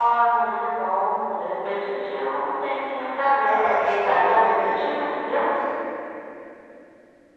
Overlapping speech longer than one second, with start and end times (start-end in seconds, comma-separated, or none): 3.4-4.9